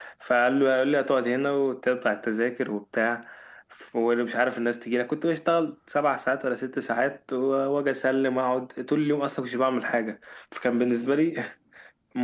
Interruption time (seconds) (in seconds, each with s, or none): none